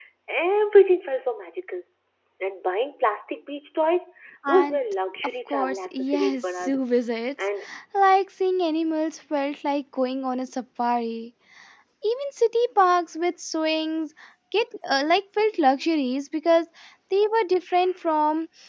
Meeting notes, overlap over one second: present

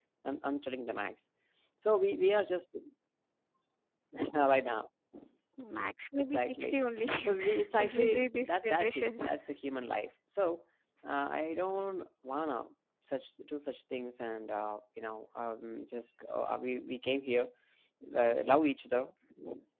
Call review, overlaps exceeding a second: present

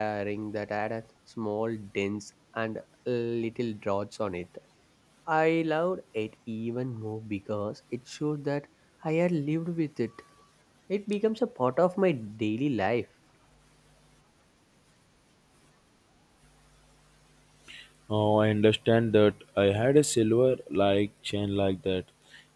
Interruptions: none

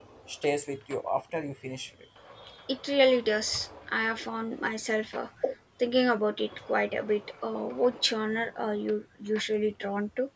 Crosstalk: none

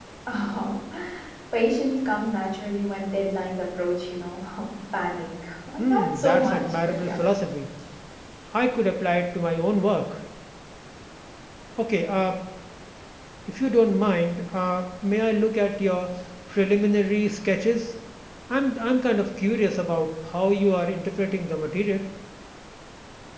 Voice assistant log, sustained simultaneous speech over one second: present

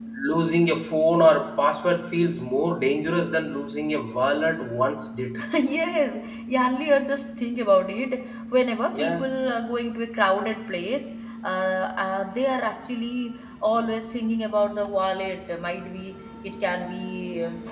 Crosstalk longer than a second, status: none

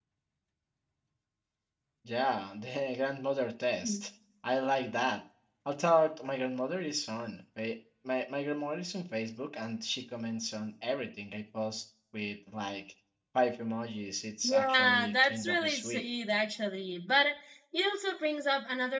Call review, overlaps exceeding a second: present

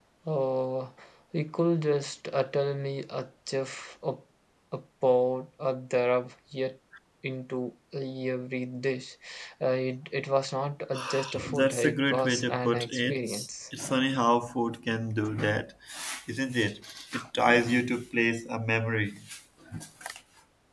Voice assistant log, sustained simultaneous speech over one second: present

